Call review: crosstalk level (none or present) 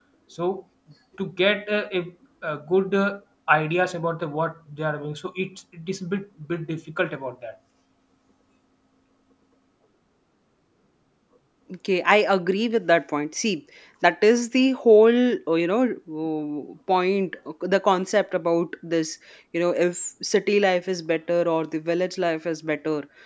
none